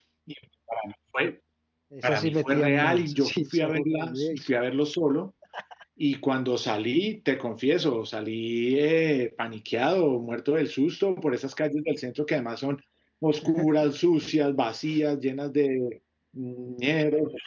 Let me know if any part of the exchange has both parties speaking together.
Yes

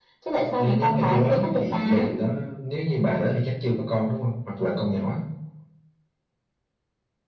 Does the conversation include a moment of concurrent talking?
Yes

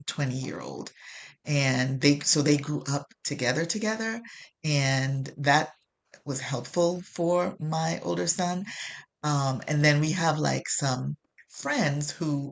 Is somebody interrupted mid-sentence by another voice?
No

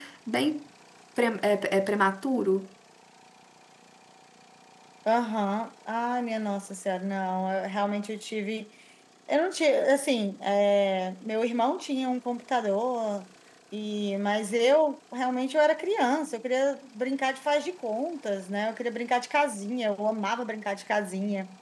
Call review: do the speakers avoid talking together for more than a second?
Yes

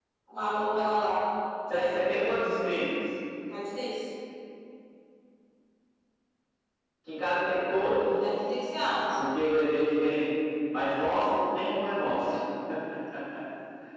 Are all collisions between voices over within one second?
Yes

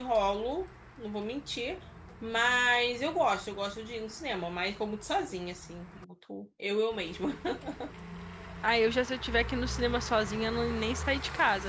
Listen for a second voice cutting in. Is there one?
No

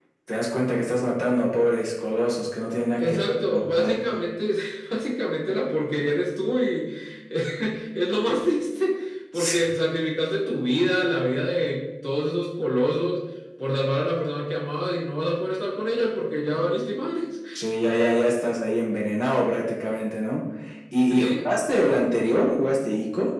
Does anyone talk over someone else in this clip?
Yes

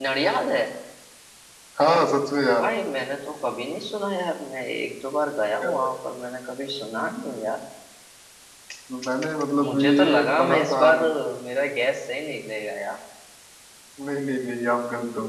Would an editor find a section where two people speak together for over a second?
Yes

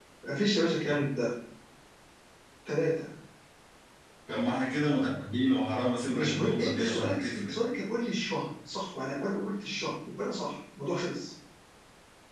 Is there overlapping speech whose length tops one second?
Yes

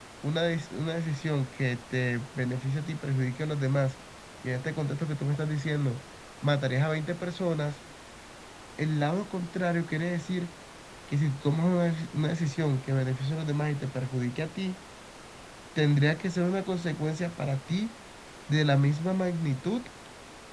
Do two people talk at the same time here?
No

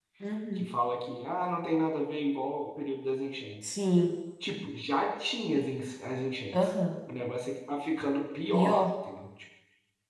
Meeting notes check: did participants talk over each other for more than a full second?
No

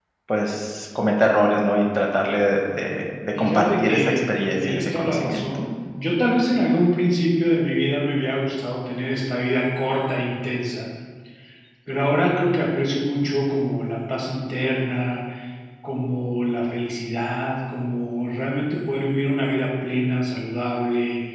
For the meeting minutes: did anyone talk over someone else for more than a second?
Yes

